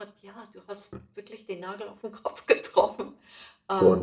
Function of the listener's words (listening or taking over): taking over